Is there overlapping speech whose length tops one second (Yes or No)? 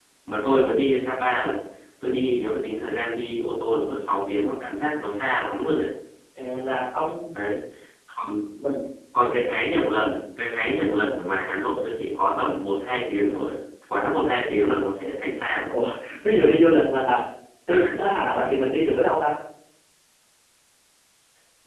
No